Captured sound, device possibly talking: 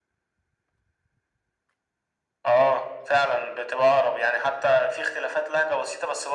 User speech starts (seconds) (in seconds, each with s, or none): none